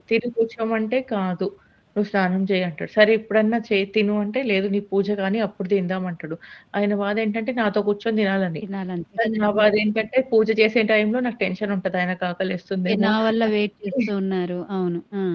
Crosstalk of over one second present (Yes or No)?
No